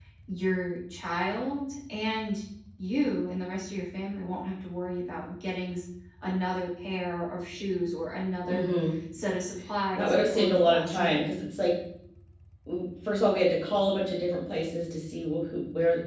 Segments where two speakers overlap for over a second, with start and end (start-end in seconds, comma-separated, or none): 9.9-11.3